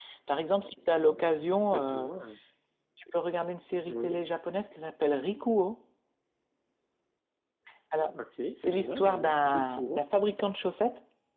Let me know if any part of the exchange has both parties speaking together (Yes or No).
Yes